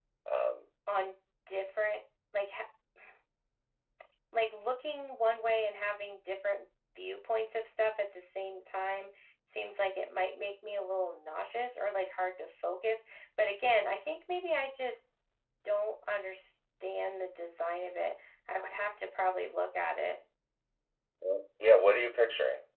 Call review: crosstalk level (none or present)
none